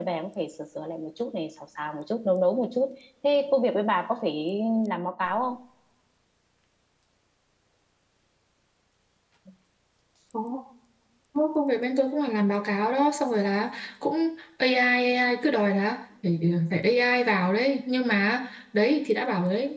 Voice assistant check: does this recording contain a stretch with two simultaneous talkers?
No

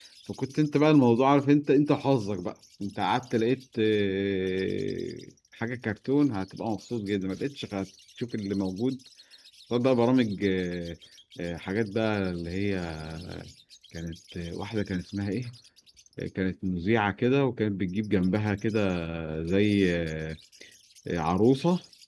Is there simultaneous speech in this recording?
No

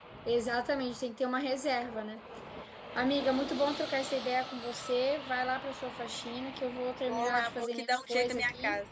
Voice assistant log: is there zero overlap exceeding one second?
No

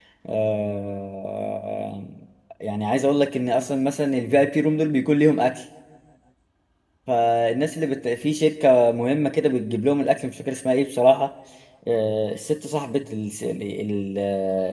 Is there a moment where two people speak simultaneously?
No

